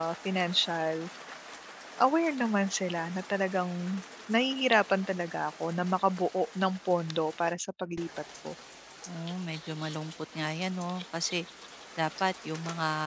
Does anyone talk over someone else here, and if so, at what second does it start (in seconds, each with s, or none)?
none